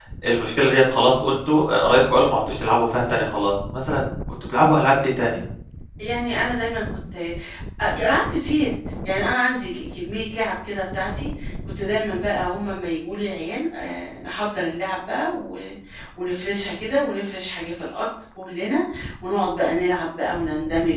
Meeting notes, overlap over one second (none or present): none